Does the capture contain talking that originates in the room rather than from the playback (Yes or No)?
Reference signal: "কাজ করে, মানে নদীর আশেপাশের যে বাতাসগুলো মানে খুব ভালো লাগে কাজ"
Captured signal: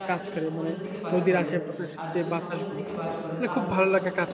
Yes